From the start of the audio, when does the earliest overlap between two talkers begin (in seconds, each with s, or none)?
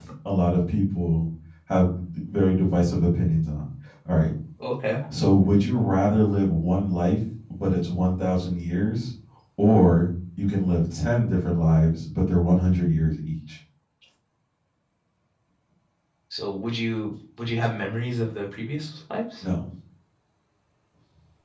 none